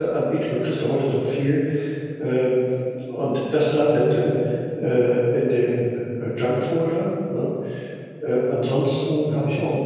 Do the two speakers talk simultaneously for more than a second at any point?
No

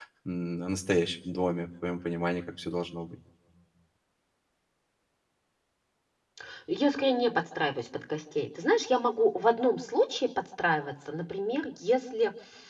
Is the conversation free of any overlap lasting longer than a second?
Yes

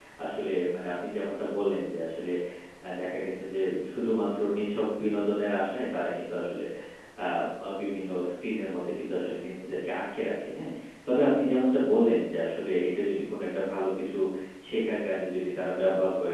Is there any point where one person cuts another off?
No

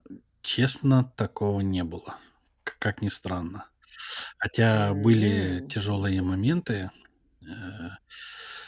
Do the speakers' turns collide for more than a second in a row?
Yes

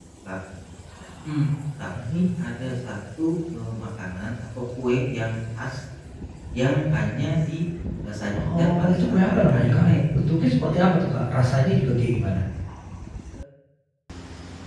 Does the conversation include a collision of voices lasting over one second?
Yes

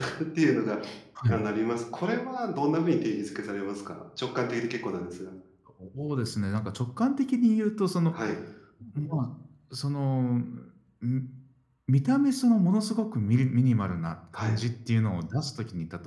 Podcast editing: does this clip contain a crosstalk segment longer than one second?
No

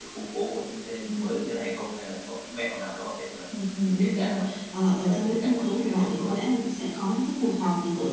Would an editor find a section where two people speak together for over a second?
Yes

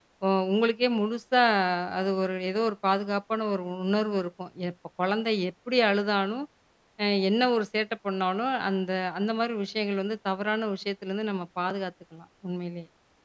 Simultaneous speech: No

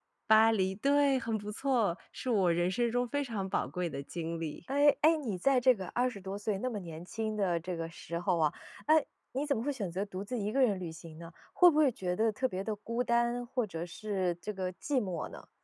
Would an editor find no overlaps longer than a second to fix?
Yes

